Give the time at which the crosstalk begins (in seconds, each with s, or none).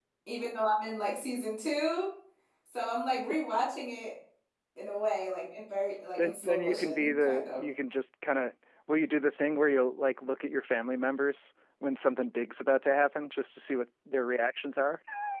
6.2 s